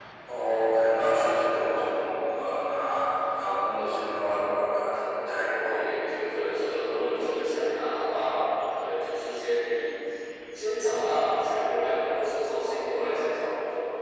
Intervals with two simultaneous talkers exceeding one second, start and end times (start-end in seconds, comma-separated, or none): none